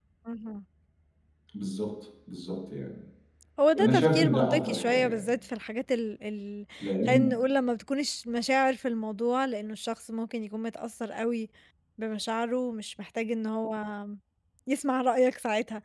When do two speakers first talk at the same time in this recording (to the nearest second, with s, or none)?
4 s